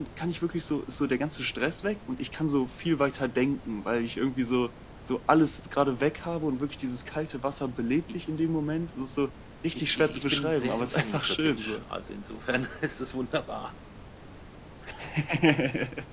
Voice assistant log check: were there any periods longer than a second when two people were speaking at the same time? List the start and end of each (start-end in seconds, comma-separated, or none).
9.8-11.8